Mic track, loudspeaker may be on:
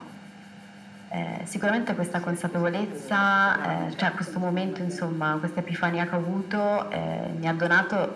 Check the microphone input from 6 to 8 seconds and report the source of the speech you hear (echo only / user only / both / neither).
echo only